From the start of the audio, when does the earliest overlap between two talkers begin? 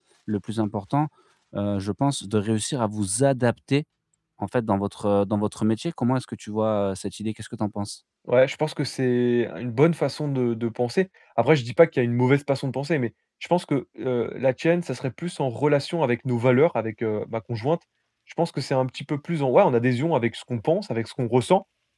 none

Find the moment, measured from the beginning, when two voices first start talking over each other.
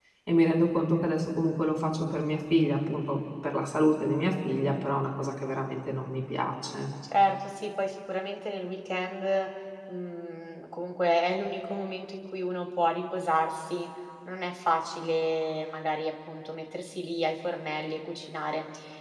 none

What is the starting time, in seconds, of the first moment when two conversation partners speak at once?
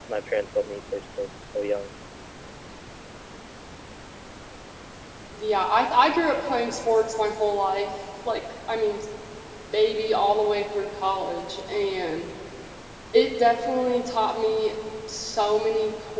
none

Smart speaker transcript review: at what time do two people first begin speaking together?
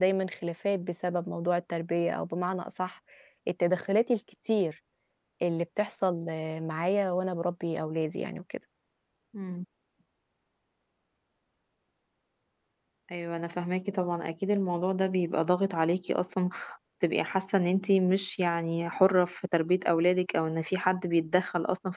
none

